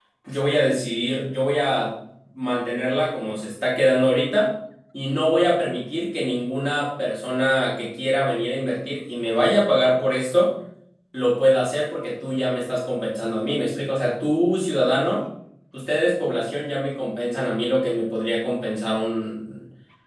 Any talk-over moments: No

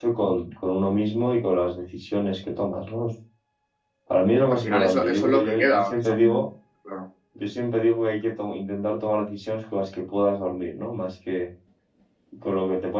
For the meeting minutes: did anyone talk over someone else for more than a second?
Yes, from 4.6 s

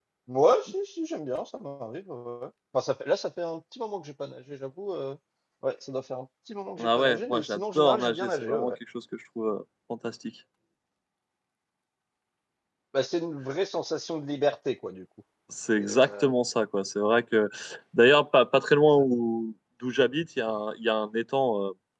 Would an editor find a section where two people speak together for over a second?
Yes, from 6.8 s

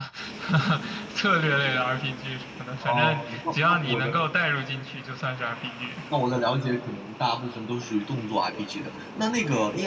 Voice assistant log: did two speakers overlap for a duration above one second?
Yes, from 2.8 s

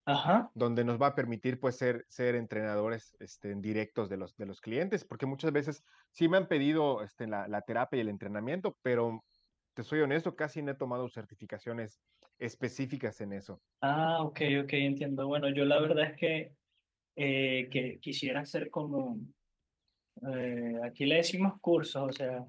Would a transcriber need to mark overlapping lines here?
No

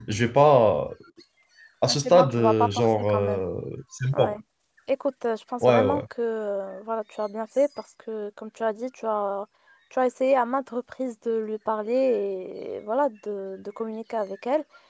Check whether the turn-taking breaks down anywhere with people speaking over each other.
Yes, from 2.0 s

